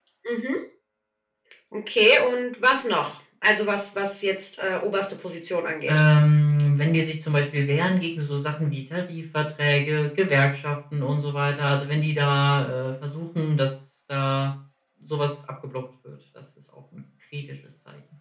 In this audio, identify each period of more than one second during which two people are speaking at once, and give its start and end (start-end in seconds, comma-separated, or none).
none